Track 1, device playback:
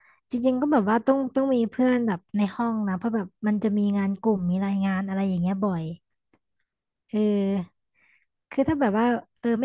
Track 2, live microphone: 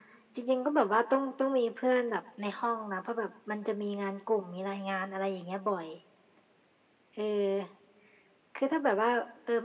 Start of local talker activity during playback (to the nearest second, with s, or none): none